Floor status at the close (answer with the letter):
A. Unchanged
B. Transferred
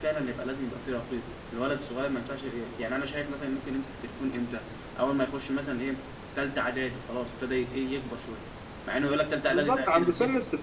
B